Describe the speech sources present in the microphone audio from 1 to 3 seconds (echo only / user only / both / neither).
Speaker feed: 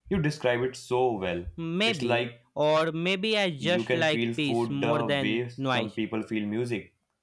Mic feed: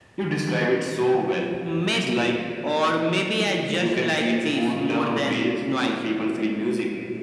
echo only